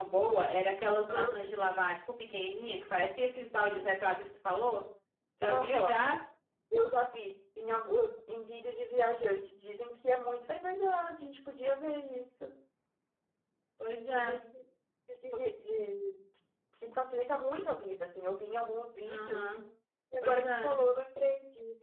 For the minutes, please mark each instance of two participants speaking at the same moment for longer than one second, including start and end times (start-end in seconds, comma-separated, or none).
none